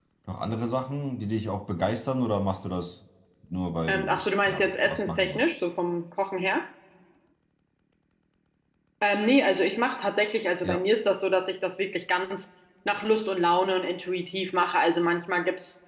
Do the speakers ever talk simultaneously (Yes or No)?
Yes